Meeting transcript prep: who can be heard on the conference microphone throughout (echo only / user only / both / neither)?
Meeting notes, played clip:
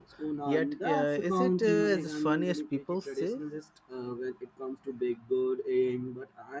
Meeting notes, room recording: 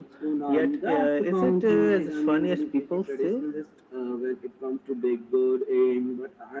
echo only